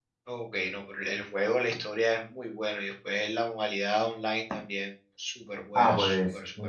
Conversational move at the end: taking over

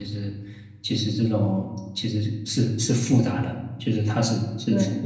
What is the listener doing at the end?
listening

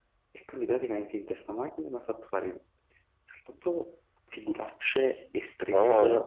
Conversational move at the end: listening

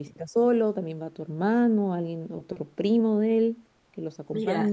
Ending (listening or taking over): taking over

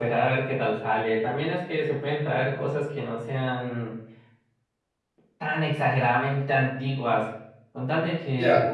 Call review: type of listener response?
listening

